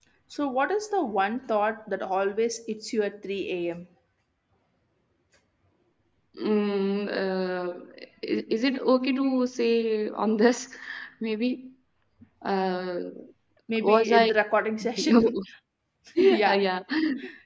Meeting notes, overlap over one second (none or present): none